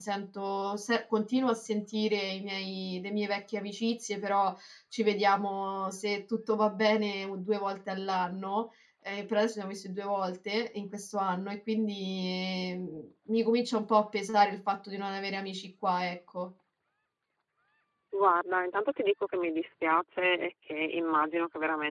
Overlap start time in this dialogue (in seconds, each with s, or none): none